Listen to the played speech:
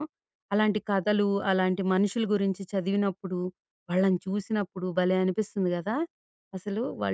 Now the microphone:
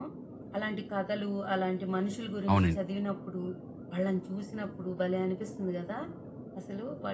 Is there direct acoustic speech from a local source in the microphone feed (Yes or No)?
Yes